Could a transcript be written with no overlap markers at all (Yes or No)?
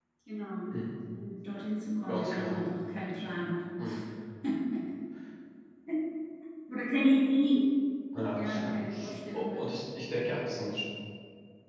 No